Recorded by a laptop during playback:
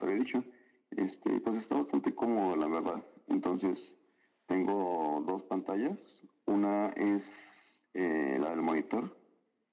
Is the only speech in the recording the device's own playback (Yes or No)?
Yes